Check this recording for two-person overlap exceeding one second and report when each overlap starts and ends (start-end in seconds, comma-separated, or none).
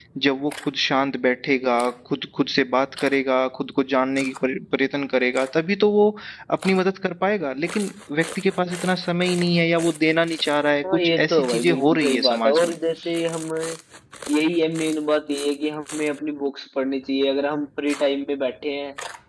10.8-12.8